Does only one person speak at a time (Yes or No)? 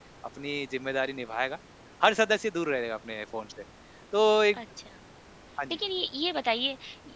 Yes